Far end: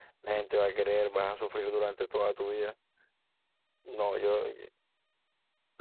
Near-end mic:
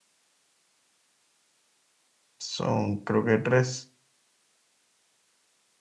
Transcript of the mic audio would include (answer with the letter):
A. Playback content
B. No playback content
B